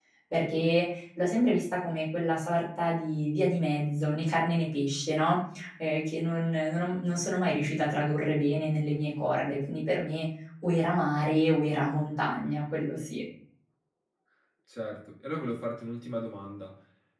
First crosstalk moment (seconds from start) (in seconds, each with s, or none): none